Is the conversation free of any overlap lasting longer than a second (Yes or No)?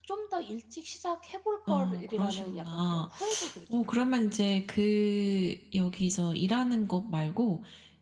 No